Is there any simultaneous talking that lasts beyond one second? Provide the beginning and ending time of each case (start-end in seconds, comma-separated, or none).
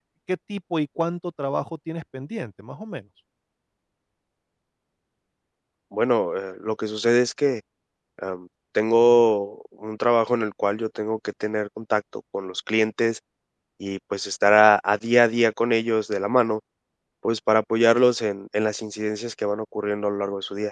none